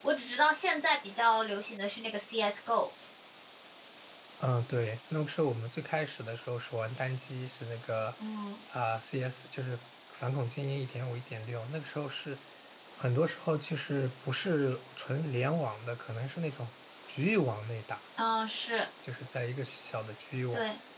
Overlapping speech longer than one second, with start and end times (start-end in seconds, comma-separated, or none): none